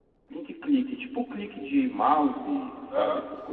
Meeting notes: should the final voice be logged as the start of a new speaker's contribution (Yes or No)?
Yes